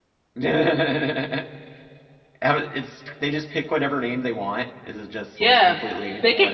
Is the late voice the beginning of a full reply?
Yes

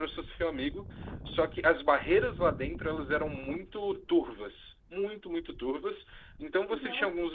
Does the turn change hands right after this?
No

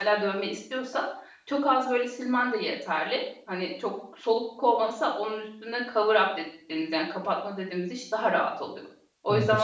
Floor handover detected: Yes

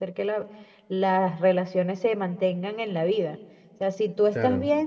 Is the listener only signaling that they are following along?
Yes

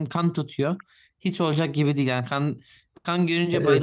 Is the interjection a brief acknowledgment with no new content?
Yes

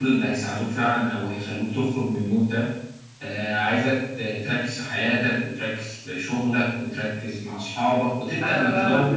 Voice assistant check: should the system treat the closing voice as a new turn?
Yes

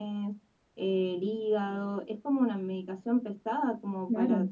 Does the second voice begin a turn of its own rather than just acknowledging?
Yes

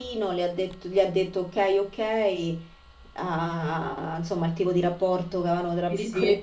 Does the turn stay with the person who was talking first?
No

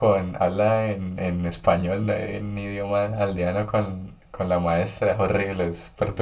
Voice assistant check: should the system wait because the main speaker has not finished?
No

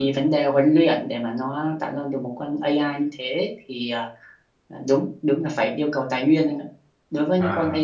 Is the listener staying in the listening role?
Yes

